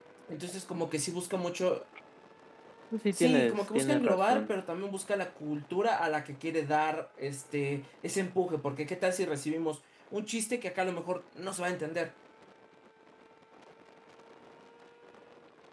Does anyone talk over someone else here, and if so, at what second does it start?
3.1 s

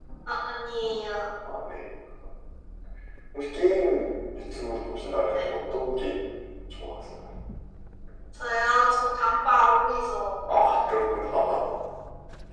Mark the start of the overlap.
none

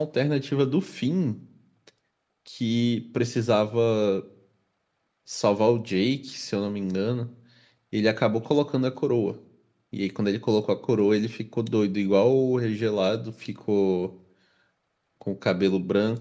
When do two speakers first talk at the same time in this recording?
none

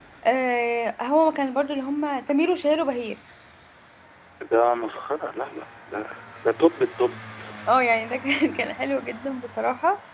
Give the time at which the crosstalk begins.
none

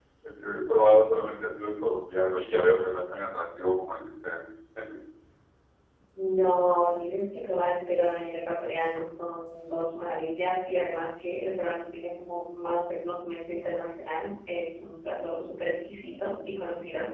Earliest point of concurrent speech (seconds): none

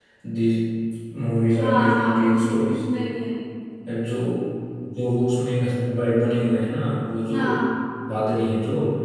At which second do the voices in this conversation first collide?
1.6 s

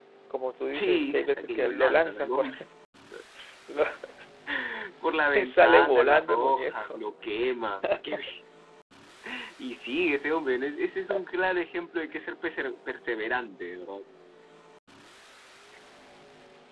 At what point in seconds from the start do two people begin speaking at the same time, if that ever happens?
0.7 s

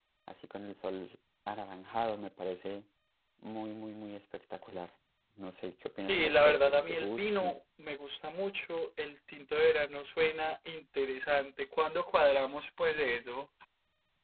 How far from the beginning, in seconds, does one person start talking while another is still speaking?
6.1 s

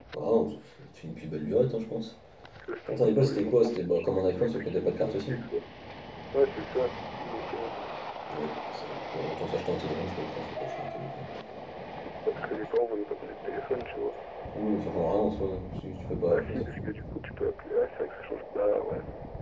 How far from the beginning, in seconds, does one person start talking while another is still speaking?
2.9 s

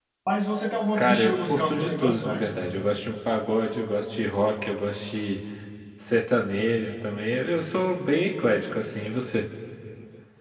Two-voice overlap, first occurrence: 1.0 s

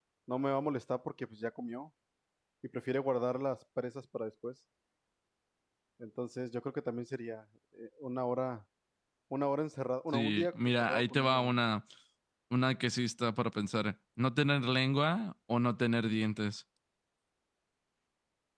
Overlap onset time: 10.1 s

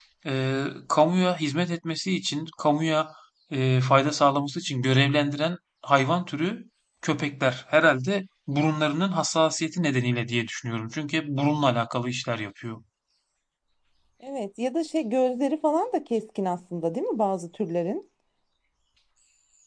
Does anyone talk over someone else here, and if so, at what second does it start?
none

